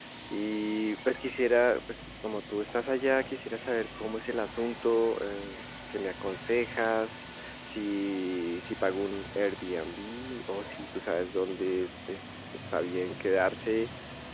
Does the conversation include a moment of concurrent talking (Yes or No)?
No